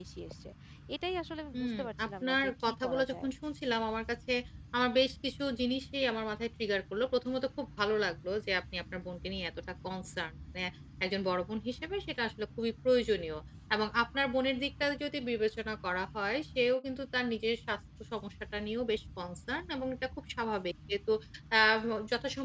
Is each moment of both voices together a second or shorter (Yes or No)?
No